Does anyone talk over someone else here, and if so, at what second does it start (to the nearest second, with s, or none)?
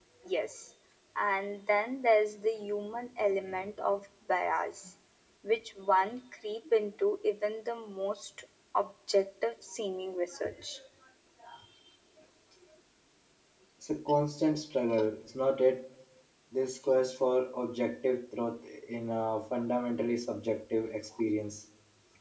none